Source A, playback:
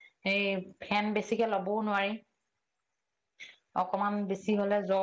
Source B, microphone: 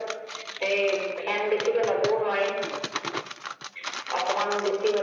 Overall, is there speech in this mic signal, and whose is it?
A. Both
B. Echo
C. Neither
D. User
B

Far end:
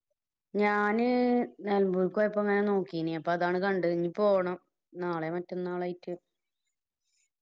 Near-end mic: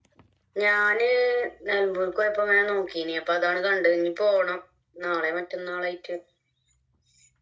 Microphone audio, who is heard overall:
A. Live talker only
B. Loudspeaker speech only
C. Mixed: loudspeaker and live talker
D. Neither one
B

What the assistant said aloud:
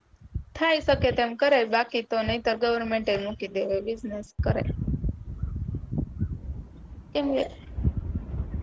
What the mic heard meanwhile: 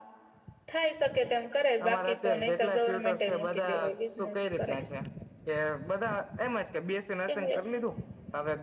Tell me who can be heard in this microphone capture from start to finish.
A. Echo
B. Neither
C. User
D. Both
D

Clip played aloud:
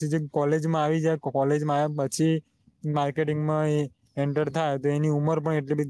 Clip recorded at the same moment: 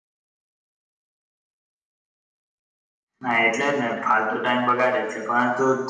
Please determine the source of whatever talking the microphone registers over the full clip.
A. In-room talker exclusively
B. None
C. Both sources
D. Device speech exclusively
A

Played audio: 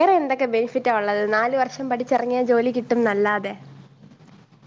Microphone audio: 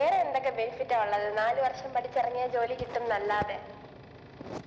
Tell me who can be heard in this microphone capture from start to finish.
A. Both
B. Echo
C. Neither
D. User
B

